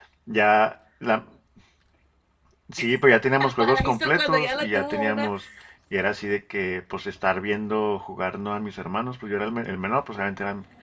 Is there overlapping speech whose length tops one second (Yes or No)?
Yes